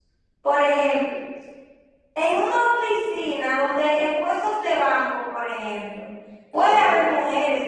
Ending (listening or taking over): listening